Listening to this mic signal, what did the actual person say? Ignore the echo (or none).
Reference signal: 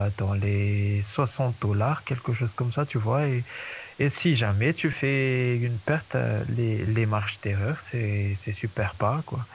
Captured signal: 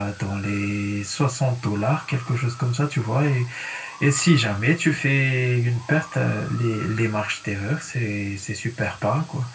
none